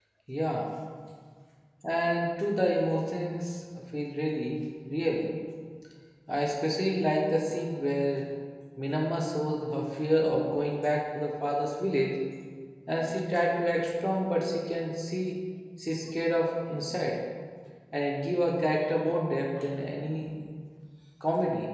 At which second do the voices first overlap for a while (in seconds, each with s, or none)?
none